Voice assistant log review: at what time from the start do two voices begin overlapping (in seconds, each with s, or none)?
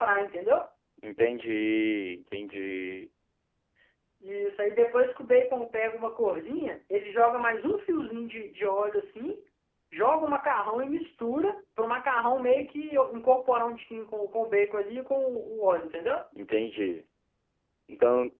none